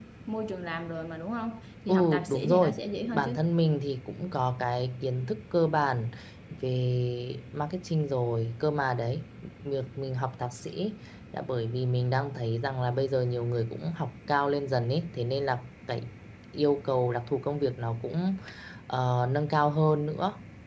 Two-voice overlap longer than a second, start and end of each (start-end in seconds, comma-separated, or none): 1.9-3.4